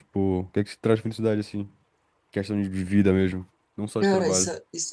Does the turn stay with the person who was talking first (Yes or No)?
No